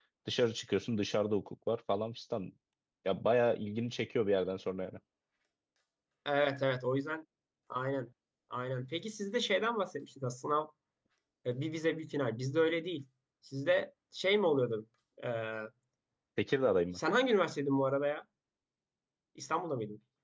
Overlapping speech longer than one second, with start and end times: none

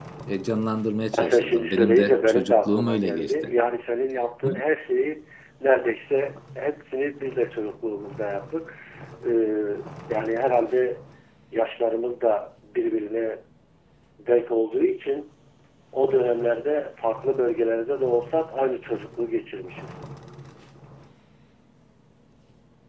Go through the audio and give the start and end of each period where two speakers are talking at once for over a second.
1.2-3.5

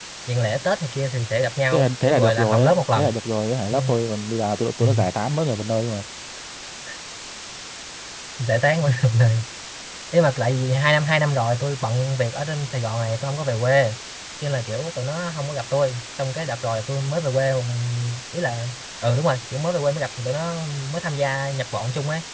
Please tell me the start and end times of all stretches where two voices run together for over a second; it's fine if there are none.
1.7-3.1

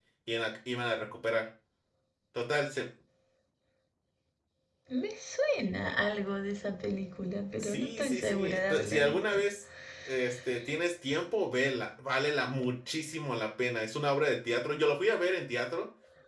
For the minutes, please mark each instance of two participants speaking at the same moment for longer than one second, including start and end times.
7.6-9.2

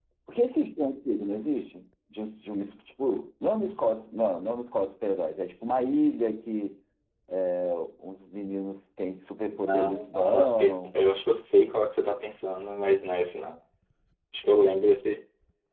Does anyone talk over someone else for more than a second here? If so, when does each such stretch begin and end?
9.6-11.0

